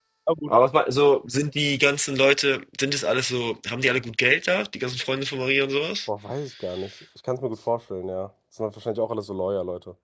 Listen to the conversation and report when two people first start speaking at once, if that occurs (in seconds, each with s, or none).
none